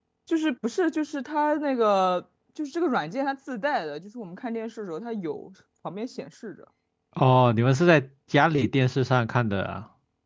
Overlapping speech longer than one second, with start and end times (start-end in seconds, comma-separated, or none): none